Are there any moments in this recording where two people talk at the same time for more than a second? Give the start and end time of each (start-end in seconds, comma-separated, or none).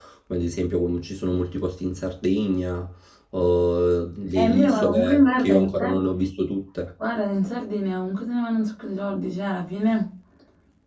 4.3-5.9